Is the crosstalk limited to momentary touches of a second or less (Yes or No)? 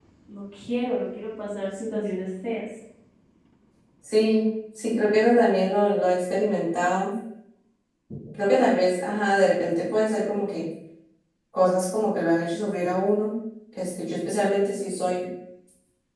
Yes